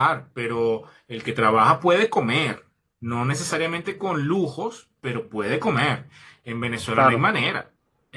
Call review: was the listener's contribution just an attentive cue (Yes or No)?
Yes